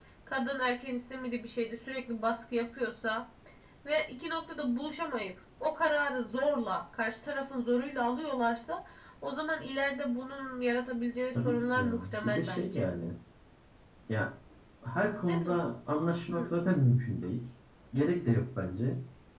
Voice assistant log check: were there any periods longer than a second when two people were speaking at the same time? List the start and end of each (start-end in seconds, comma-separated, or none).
11.3-12.9